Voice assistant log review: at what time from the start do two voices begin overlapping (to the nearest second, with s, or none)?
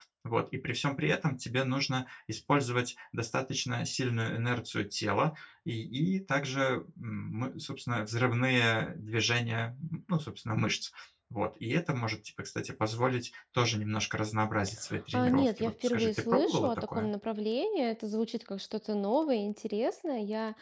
15 s